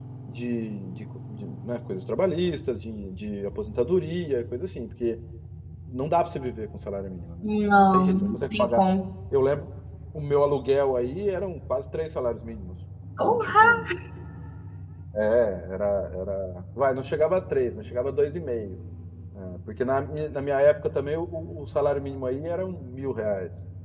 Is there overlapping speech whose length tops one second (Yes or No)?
Yes